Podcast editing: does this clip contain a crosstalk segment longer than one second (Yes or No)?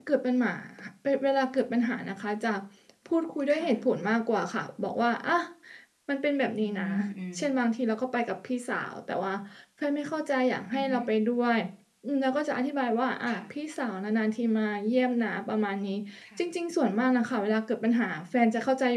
No